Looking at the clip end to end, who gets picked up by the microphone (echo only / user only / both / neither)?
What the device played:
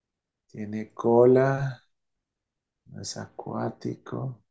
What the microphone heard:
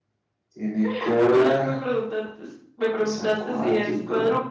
both